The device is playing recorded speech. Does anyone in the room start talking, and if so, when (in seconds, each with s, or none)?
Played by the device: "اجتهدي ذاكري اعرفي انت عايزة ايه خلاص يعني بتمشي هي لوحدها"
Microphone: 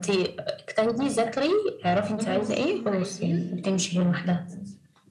2.2 s